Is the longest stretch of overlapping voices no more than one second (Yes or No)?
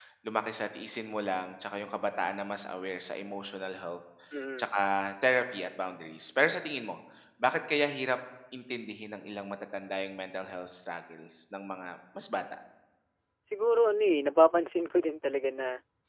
Yes